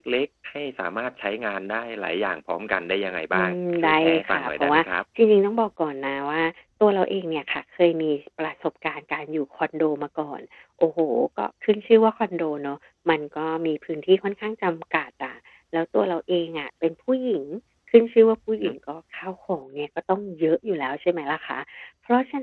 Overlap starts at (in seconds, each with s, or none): 3.3 s